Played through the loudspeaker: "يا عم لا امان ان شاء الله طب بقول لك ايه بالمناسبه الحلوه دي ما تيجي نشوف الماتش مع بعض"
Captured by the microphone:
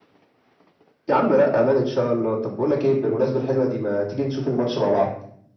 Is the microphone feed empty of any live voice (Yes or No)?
Yes